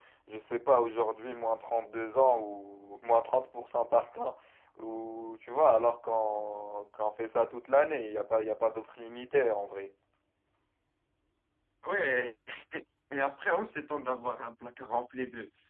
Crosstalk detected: No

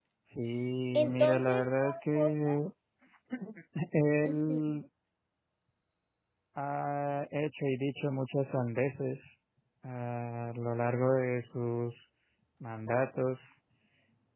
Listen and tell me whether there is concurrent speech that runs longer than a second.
Yes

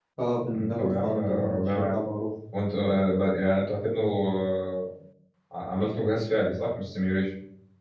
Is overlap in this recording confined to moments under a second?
No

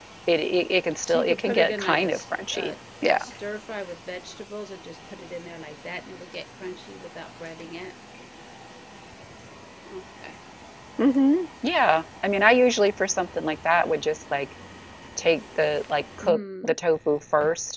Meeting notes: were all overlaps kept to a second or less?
No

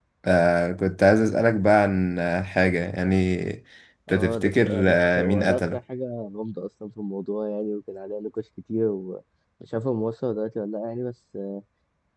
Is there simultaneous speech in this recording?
Yes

